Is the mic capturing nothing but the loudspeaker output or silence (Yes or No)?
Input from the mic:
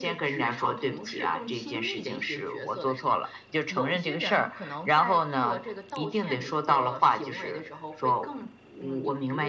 Yes